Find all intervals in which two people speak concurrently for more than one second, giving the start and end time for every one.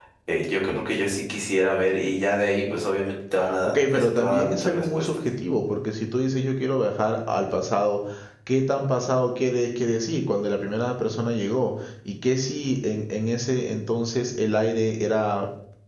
3.7-5.1

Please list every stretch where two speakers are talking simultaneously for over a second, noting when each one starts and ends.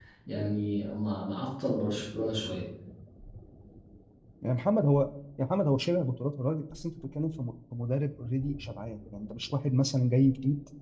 none

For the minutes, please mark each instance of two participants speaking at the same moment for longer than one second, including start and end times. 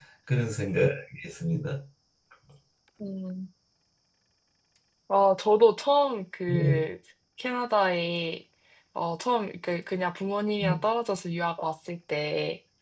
none

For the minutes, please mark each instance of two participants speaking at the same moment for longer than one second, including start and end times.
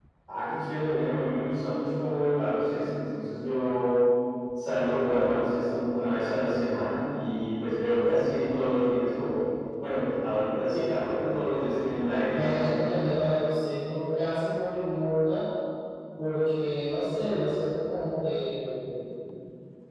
none

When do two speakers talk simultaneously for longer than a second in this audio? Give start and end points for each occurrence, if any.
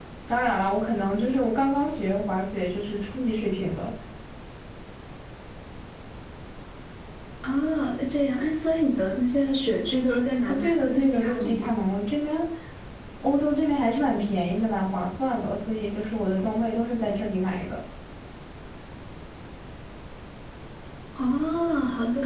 10.5-11.7

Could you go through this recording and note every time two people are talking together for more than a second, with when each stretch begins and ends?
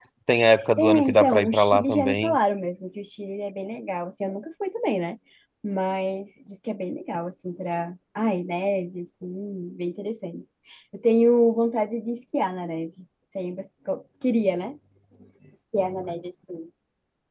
0.8-2.4

